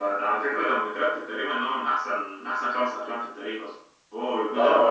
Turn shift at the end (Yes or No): Yes